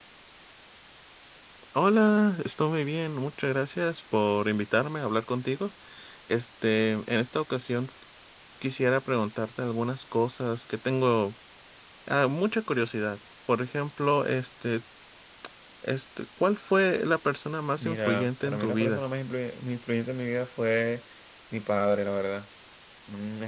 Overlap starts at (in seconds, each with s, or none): 17.8 s